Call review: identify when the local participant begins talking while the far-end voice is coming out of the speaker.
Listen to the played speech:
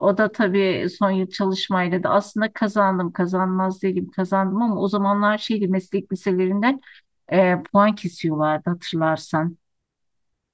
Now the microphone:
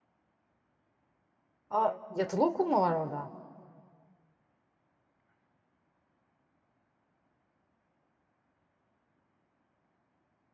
1.7 s

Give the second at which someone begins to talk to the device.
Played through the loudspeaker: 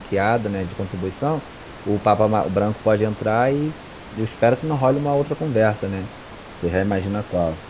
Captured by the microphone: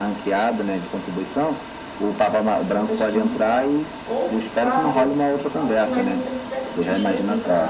2.7 s

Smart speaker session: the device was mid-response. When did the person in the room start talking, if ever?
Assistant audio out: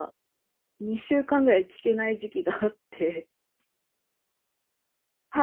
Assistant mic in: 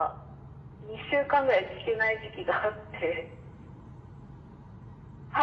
none

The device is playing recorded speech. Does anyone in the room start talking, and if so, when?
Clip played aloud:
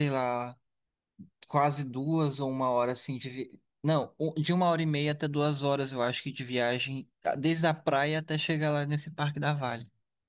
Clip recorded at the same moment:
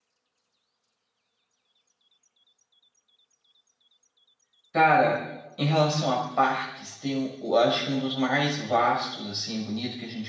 4.7 s

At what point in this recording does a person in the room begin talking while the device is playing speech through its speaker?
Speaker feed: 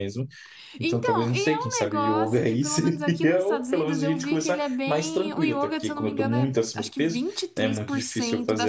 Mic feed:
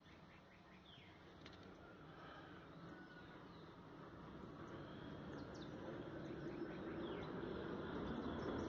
none

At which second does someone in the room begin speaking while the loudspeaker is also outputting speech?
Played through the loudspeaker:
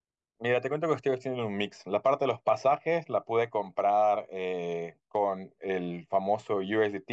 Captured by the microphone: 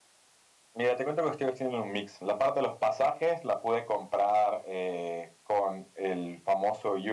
none

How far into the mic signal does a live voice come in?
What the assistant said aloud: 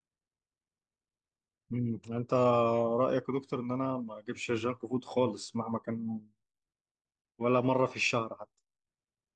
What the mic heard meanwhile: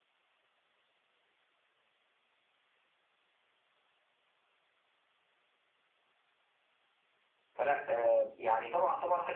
7.6 s

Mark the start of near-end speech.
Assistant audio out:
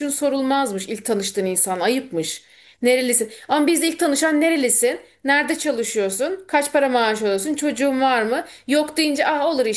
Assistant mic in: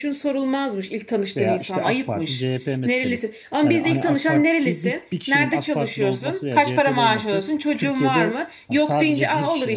1.4 s

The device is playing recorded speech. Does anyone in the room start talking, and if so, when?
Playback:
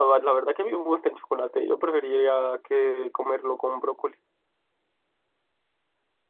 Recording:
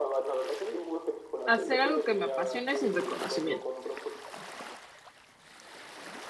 1.4 s

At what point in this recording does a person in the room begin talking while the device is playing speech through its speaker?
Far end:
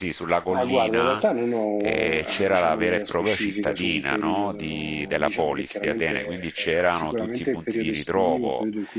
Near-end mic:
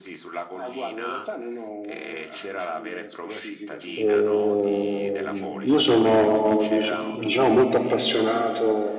3.9 s

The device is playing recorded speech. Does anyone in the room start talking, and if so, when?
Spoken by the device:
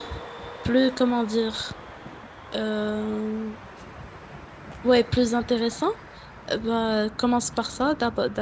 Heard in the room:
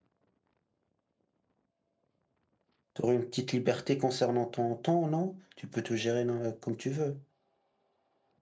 2.9 s

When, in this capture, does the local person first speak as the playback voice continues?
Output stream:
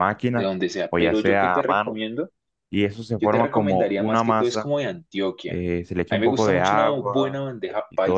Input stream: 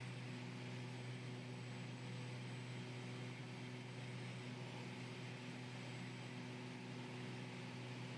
none

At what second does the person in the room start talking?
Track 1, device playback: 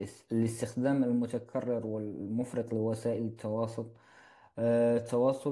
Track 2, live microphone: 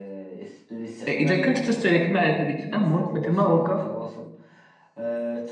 1.1 s

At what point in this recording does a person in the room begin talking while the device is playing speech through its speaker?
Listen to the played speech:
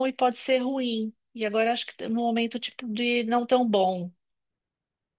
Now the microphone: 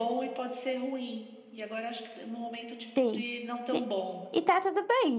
3.0 s

